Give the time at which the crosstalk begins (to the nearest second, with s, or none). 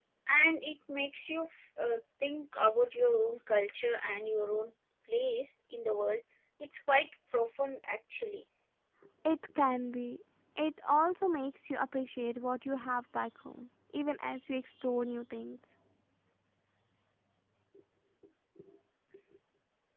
none